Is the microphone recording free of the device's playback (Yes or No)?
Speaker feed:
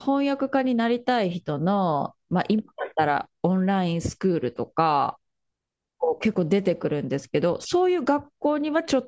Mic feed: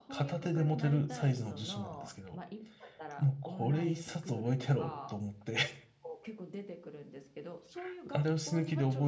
No